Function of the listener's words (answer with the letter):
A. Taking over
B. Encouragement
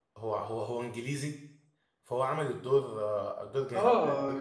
A